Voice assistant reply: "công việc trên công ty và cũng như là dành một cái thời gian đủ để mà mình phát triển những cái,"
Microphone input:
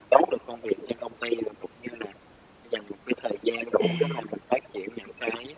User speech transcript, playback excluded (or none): À.